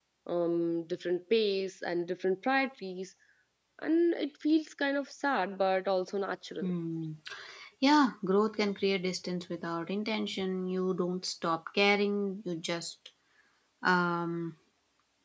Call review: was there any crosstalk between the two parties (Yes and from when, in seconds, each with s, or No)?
No